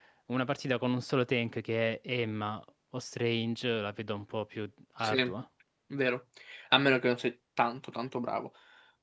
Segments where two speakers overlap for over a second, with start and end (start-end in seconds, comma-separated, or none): none